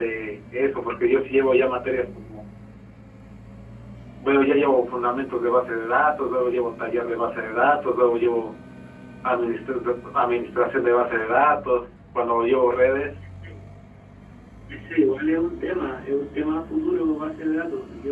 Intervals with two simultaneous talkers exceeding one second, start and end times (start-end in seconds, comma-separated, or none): none